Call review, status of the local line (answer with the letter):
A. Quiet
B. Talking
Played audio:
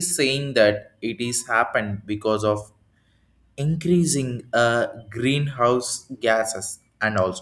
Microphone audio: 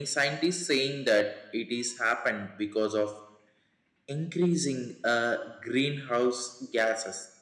A